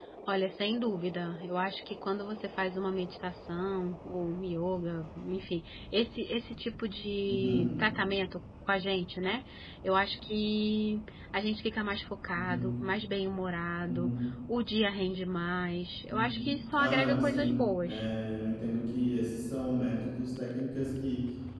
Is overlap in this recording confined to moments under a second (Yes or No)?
No